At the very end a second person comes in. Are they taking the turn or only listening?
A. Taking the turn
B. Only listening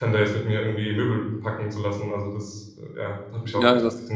A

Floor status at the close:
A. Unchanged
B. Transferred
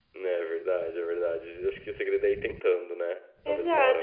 B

